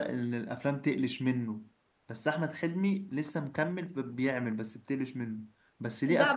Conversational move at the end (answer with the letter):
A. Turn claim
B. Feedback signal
A